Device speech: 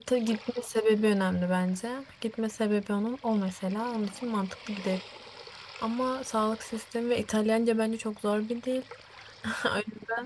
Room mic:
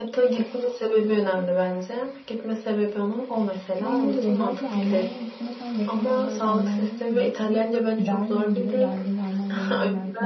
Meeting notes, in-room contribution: present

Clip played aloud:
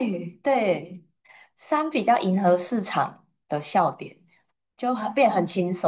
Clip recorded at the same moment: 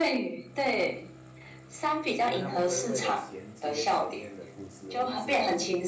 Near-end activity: present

